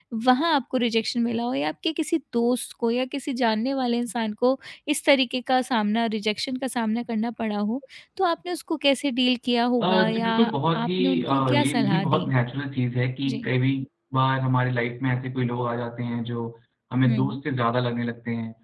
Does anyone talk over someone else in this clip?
Yes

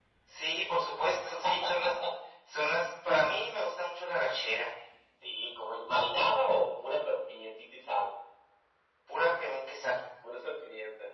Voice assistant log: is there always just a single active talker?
Yes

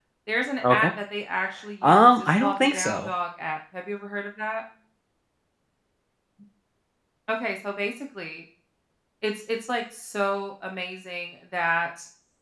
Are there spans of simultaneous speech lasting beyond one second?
Yes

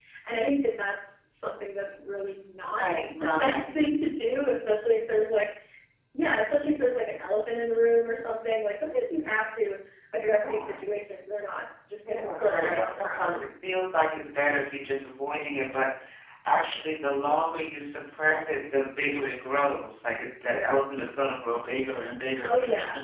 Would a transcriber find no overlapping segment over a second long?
No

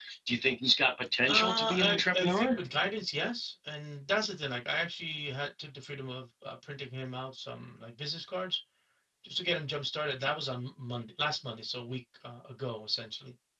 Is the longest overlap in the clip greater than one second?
Yes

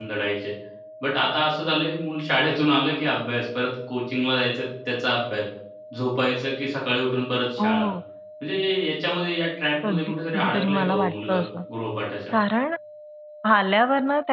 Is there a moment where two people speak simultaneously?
Yes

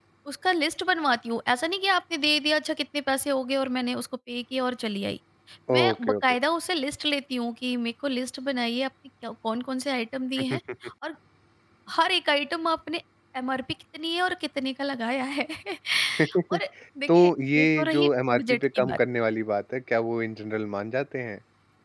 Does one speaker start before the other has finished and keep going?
Yes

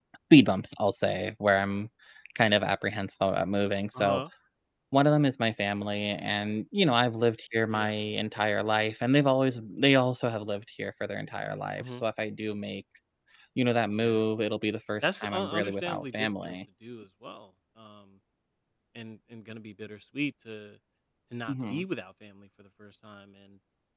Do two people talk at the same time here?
Yes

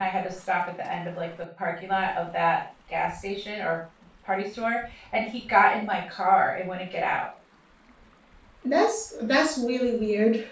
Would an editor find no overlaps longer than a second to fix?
Yes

